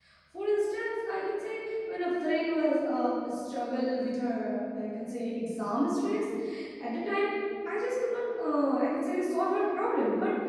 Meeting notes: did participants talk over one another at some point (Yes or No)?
No